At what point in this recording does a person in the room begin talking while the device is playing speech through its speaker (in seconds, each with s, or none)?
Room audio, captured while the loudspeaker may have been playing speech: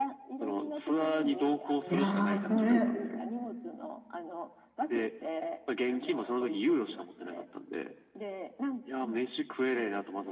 1.9 s